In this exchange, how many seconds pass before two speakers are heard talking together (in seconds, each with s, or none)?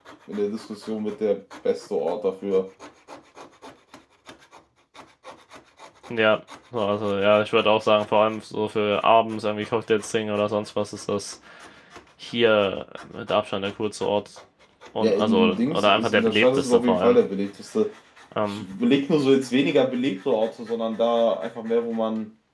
15.0 s